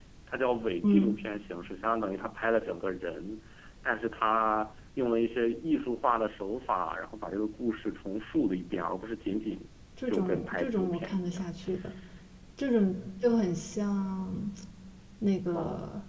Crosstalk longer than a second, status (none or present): present